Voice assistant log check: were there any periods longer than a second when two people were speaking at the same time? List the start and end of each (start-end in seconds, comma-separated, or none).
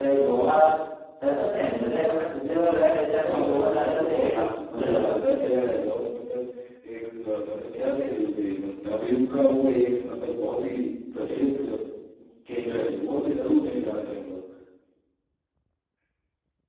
3.2-5.1